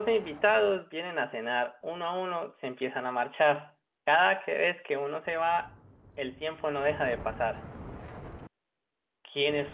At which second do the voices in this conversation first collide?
none

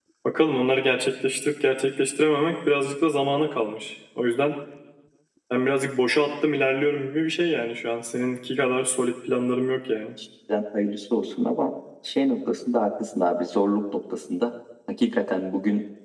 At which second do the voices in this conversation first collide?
none

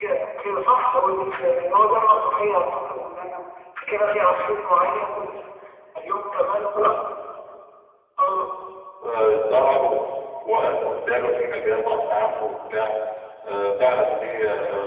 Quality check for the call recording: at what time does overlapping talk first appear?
none

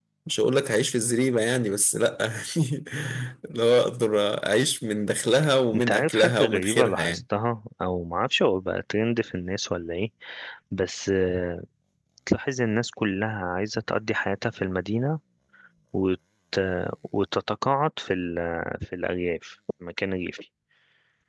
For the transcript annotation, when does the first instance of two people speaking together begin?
5.7 s

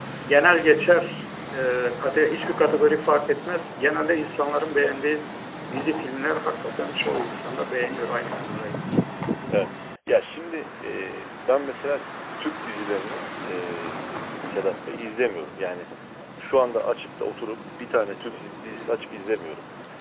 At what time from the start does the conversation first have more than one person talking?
none

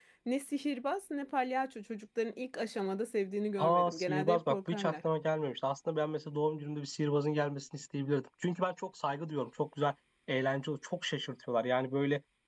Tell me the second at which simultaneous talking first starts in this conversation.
3.6 s

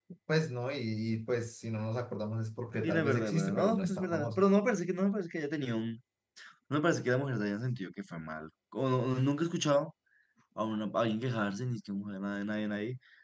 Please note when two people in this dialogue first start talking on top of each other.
2.8 s

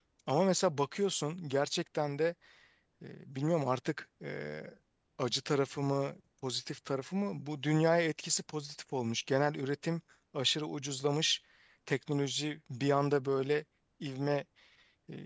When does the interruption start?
none

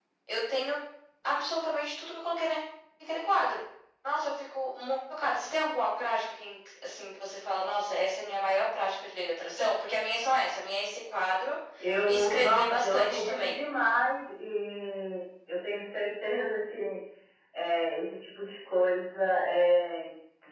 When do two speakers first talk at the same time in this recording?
12.0 s

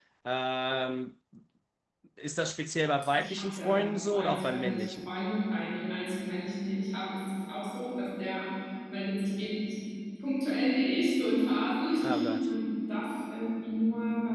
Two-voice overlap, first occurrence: 3.1 s

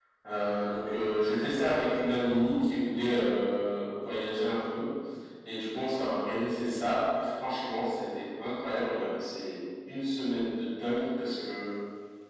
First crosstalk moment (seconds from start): none

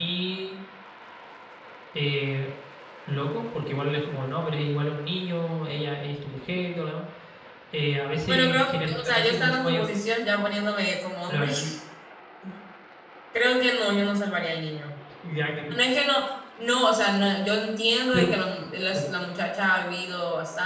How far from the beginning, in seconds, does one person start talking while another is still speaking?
8.2 s

